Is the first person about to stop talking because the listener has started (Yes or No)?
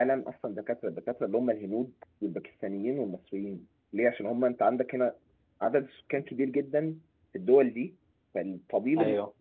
No